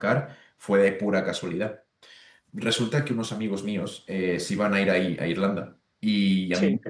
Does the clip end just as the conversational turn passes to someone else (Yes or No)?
No